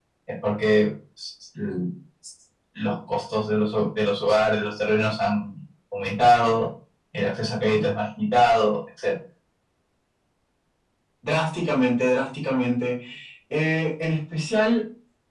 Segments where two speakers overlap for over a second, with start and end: none

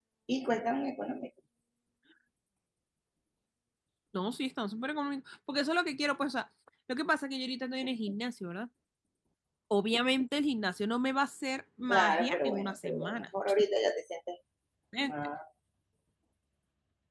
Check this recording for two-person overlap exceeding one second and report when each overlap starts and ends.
11.9-13.2

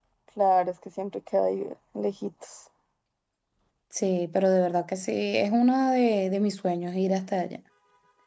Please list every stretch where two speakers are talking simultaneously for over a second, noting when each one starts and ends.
none

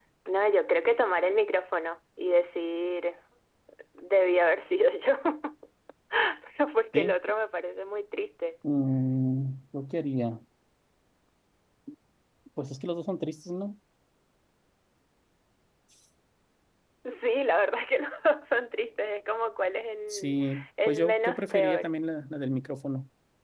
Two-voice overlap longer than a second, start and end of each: 20.1-21.9

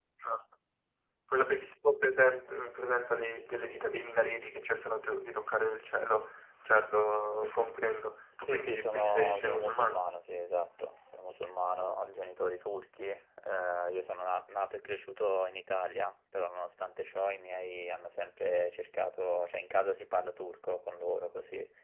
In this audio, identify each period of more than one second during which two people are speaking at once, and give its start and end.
8.5-10.1

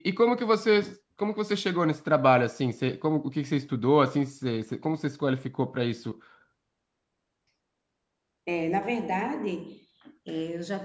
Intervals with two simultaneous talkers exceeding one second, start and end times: none

